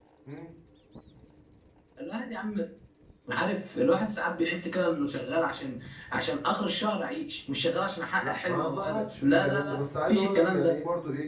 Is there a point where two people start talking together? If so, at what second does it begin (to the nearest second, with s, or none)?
8 s